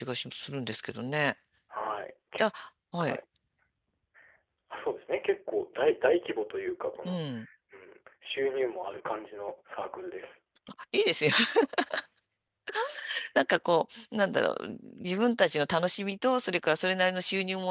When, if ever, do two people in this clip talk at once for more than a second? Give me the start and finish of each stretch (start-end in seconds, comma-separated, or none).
none